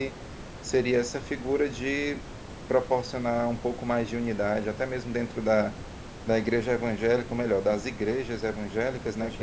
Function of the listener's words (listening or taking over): listening